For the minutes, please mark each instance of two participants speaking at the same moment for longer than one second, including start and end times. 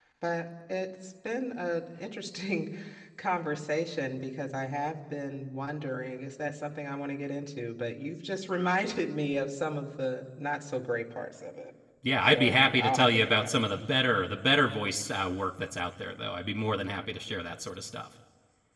12.2-13.6

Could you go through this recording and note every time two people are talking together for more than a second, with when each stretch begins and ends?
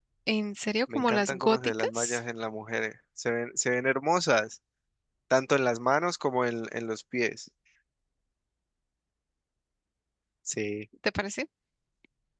0.9-2.2

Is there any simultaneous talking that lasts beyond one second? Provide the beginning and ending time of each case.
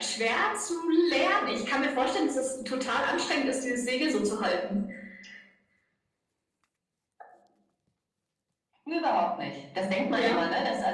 none

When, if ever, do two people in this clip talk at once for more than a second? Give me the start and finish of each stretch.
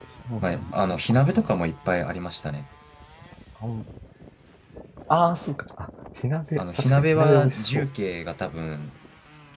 6.6-7.8

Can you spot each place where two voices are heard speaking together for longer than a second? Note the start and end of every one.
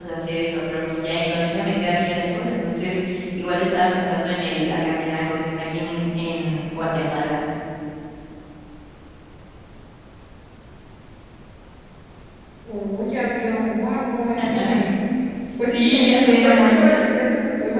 15.7-17.0

